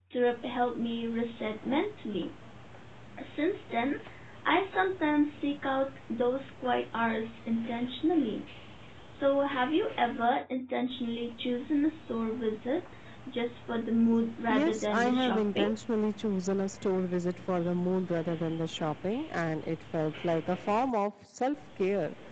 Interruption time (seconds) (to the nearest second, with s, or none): 14 s